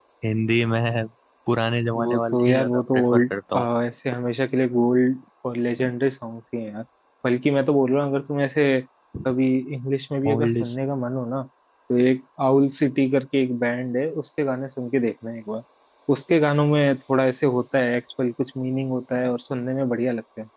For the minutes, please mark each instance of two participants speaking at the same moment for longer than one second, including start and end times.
1.9-3.3

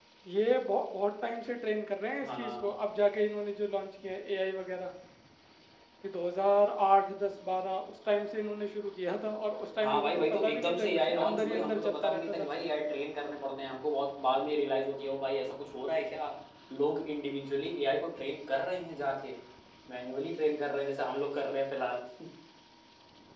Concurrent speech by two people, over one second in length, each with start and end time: 9.8-12.5

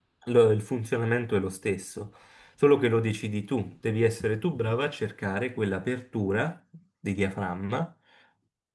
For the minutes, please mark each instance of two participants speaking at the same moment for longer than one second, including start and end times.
none

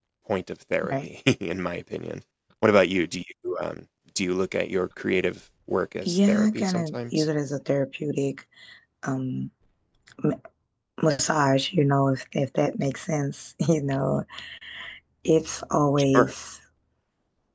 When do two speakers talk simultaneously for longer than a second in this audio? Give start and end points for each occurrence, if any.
6.0-7.3

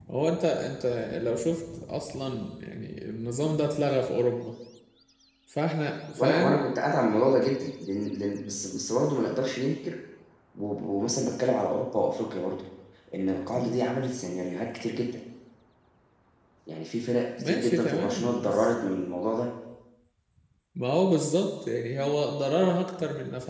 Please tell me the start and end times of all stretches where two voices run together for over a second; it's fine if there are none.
17.4-18.7

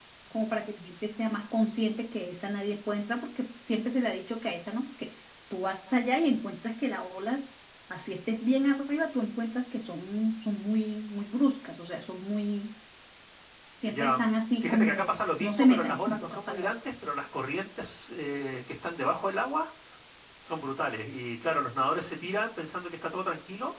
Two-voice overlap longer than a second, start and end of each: 14.6-16.7

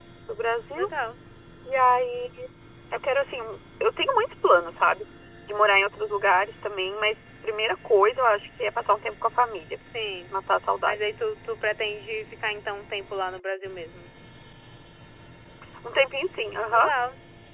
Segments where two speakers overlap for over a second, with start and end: none

